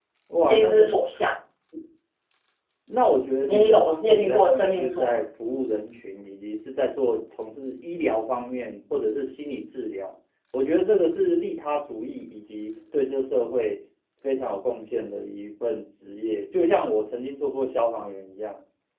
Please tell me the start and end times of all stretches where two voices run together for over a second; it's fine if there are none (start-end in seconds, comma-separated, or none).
3.5-5.1